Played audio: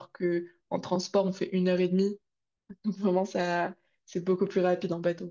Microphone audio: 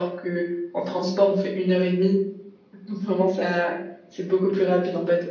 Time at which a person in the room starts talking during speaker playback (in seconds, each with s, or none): none